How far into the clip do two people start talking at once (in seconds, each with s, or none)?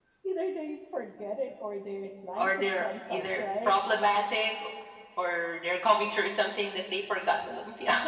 2.4 s